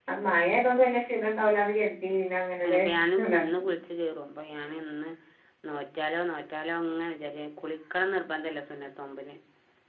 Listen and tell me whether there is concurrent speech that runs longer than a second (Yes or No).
No